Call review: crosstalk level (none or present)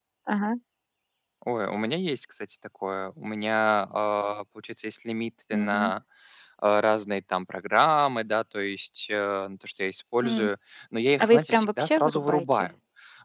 present